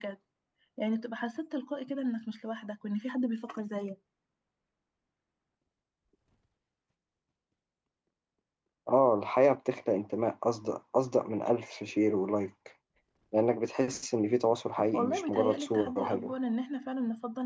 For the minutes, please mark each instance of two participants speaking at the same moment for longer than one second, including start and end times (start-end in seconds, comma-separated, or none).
14.9-16.3